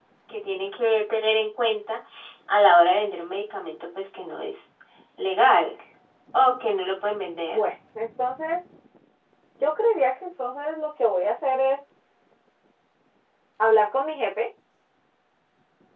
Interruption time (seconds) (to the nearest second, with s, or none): none